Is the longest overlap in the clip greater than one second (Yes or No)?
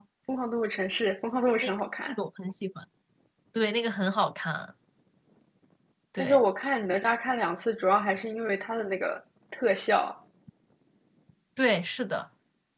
No